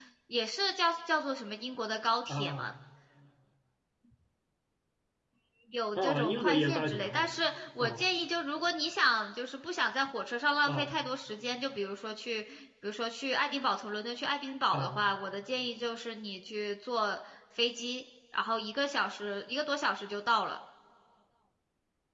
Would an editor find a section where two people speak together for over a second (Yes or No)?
Yes